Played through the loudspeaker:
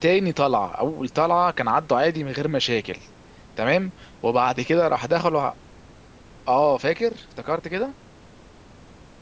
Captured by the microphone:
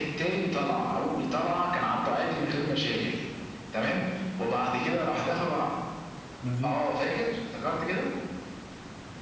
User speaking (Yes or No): Yes